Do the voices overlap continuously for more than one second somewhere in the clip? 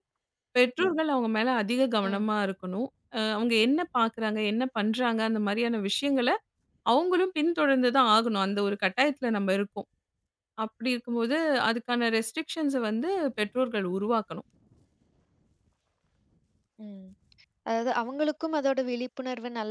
No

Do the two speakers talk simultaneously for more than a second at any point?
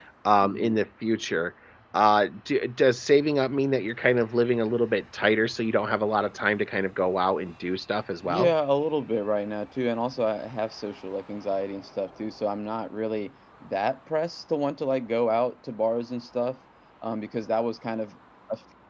No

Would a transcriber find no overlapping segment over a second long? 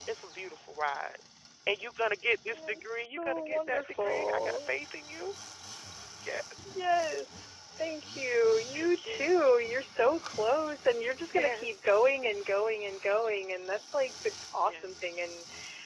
No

